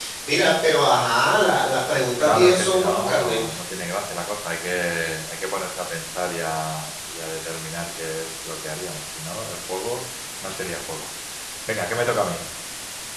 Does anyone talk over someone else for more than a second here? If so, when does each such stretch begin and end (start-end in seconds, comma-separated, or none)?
2.2-3.4